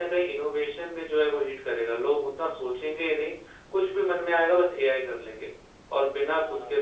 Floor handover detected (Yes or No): Yes